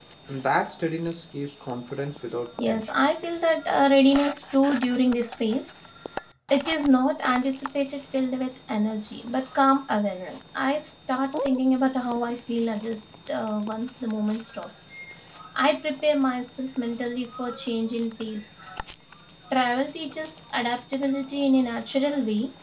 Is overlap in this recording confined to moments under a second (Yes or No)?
Yes